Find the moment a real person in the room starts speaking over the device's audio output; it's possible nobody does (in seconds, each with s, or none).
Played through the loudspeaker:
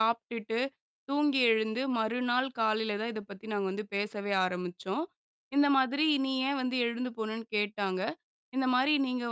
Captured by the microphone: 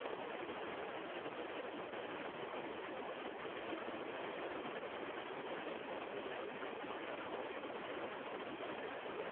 none